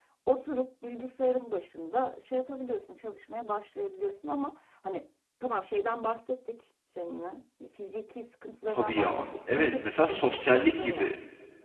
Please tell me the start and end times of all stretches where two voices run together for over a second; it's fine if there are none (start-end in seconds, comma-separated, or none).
8.7-11.2